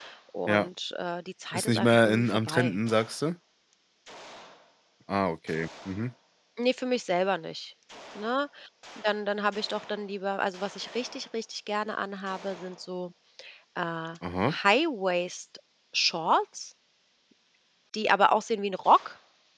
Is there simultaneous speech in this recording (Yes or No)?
Yes